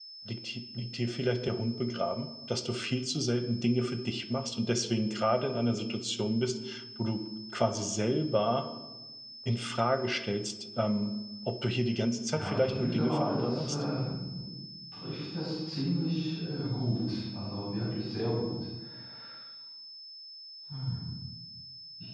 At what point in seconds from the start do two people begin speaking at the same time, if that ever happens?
12.3 s

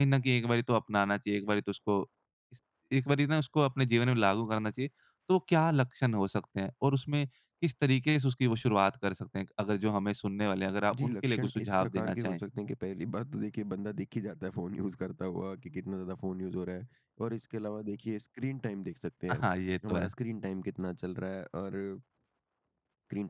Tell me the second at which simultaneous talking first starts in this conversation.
10.9 s

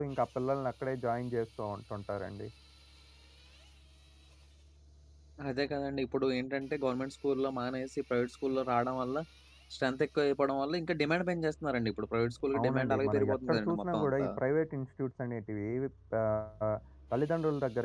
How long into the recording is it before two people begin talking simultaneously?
12.5 s

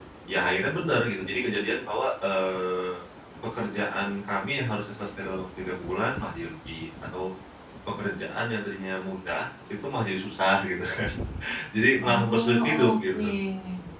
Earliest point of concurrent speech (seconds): 12.0 s

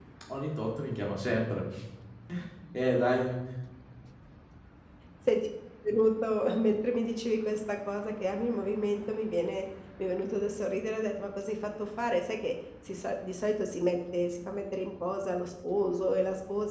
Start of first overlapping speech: none

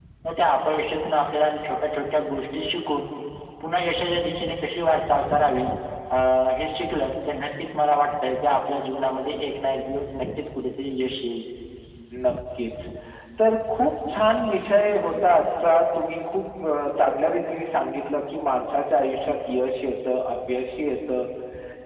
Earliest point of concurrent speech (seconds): none

